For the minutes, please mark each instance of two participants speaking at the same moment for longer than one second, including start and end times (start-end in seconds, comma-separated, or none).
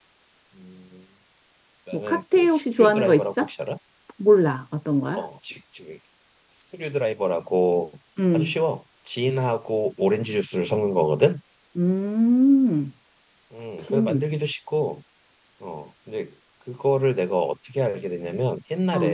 1.9-3.5